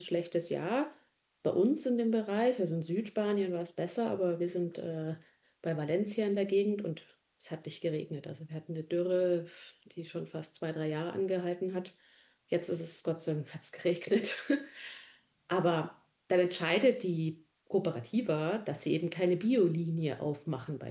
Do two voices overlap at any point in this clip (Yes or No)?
No